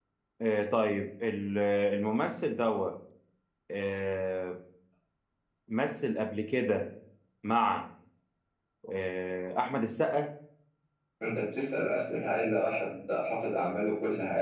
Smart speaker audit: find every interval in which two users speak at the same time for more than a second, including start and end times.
none

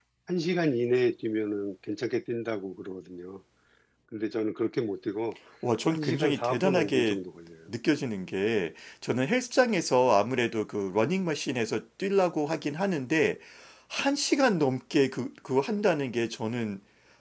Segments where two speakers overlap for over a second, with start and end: 5.9-7.2

